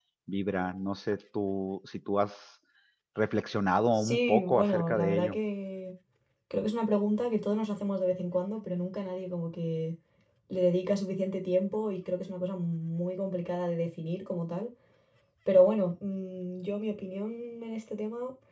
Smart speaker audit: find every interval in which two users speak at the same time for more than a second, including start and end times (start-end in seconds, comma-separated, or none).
4.0-5.4